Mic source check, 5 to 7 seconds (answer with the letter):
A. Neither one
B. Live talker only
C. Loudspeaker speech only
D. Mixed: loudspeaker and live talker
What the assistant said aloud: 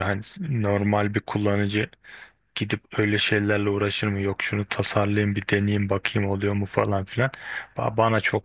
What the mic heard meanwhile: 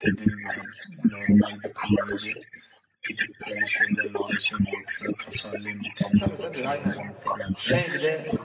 D